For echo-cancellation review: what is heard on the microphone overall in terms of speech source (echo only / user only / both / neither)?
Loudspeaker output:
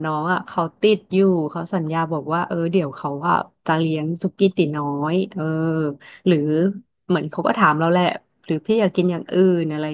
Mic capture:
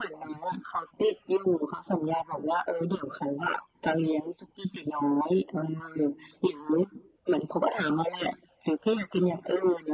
echo only